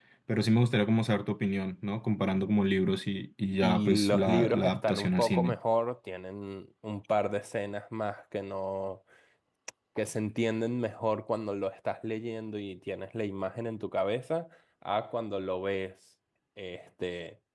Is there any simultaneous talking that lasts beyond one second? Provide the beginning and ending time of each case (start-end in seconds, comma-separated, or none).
3.6-5.6